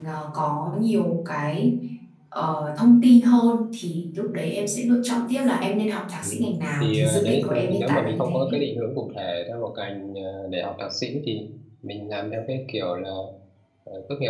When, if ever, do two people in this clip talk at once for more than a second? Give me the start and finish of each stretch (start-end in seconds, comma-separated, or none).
6.8-8.6